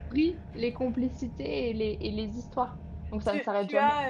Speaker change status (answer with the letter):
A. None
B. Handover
B